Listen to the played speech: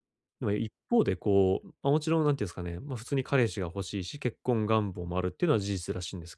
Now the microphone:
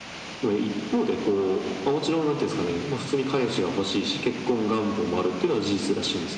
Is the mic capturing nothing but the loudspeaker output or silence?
Yes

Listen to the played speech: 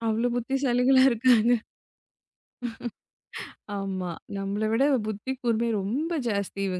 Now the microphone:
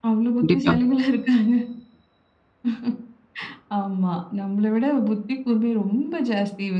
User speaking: Yes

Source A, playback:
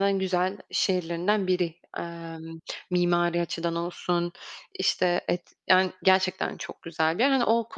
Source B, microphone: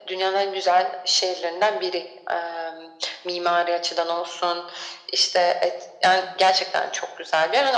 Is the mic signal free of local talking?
Yes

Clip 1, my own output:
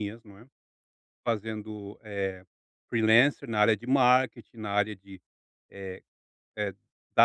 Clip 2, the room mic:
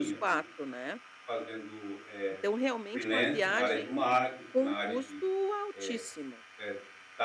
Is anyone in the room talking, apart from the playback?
Yes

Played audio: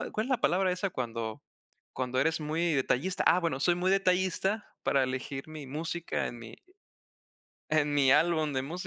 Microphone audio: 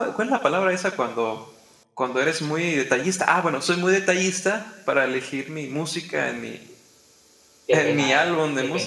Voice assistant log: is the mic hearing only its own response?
No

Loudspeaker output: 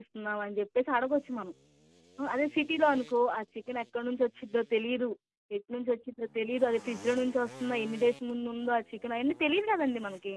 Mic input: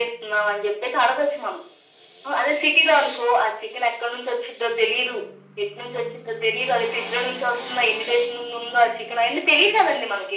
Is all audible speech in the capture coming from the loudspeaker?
Yes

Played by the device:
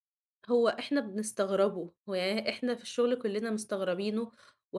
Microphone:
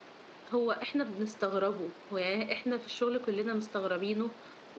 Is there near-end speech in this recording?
No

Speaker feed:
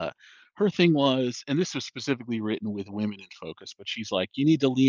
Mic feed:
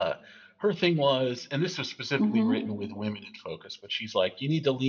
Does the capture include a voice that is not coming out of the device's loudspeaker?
Yes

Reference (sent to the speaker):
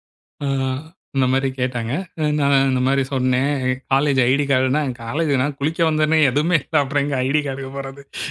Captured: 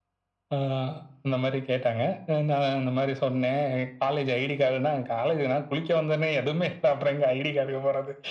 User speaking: No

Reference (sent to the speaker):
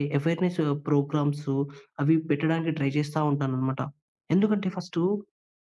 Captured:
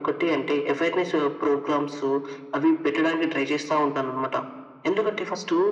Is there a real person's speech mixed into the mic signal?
No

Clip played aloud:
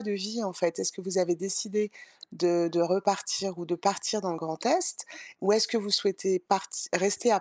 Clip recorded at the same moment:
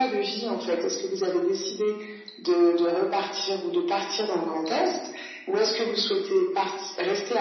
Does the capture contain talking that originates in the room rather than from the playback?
No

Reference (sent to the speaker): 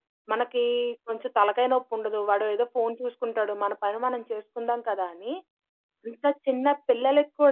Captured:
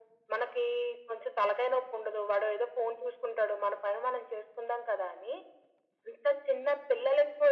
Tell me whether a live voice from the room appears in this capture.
No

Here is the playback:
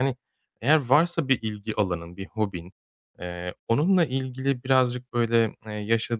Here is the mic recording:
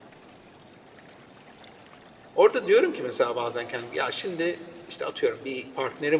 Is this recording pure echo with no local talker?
No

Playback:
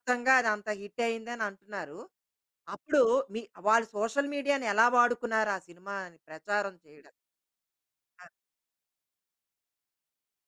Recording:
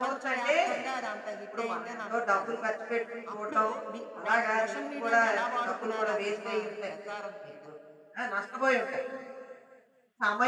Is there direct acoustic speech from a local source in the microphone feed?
Yes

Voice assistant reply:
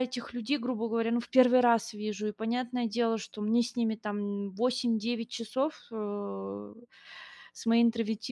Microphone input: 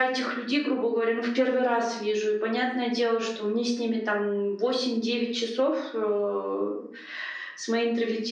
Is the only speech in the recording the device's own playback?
Yes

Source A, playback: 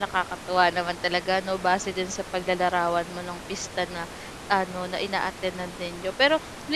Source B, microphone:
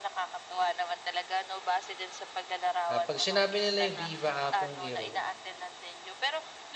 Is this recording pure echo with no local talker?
No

